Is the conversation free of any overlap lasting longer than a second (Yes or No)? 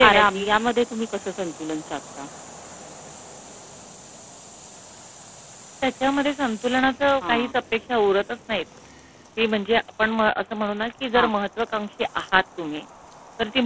Yes